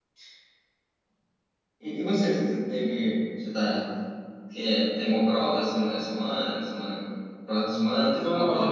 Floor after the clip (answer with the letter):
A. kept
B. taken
B